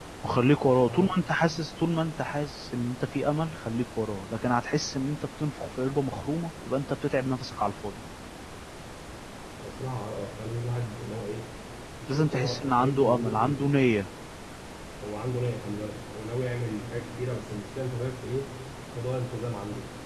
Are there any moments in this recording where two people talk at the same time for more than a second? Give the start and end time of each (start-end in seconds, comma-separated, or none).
12.1-13.6